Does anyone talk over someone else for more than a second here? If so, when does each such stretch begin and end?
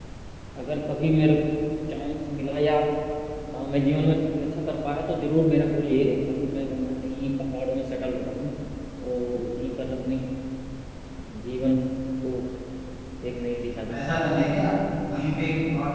none

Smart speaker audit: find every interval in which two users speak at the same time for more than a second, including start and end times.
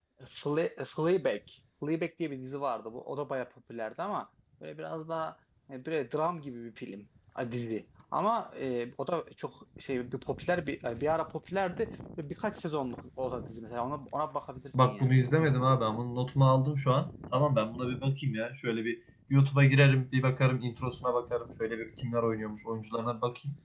none

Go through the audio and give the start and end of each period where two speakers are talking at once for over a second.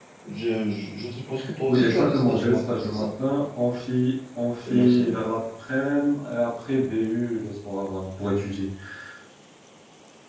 1.7-3.1

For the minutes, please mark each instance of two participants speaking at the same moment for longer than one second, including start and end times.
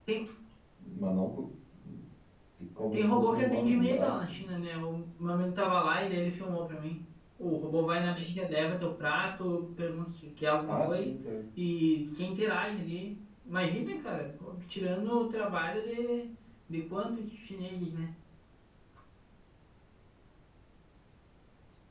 2.9-4.5

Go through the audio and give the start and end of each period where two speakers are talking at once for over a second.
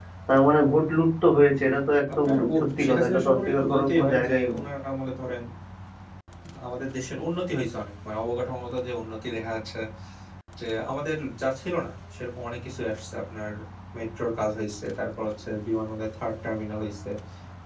2.2-4.6

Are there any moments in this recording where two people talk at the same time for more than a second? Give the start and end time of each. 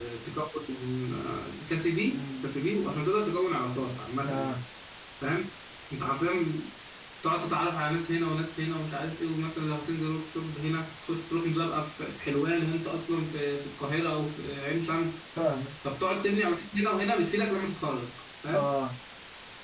none

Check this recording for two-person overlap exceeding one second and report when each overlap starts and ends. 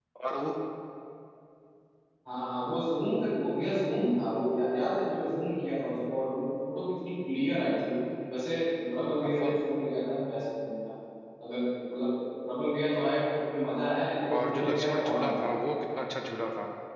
14.5-15.7

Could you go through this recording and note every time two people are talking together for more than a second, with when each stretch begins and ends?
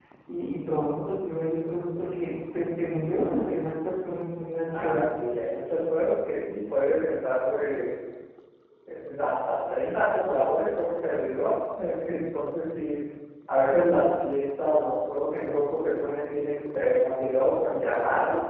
none

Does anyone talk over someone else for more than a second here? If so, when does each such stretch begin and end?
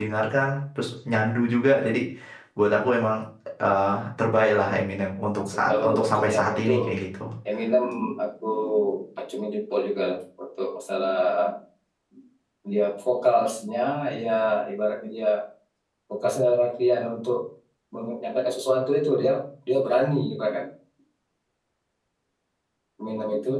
5.4-6.7

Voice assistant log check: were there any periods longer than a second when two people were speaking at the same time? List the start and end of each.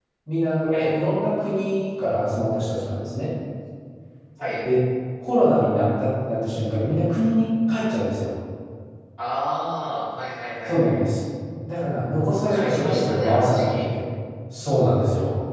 12.5-13.8

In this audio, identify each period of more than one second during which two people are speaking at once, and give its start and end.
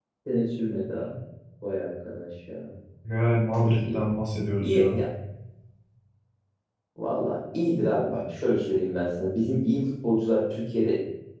none

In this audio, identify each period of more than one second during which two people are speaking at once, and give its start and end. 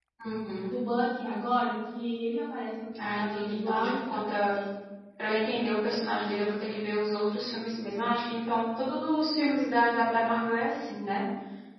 3.2-4.6

